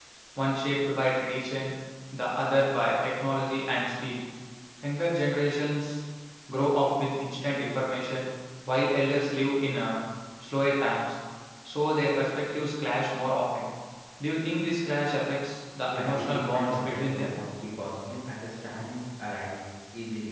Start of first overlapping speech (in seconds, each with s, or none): 15.9 s